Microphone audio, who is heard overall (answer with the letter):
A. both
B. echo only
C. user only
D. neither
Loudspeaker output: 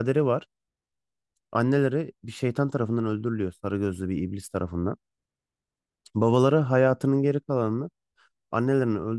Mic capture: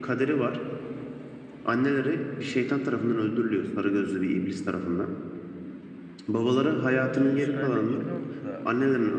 A